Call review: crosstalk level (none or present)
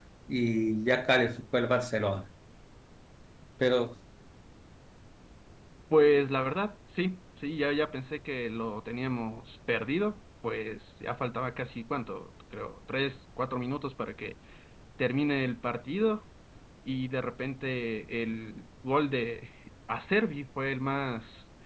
none